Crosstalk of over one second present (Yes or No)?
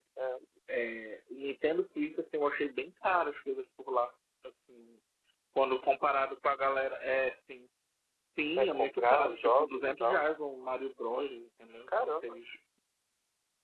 Yes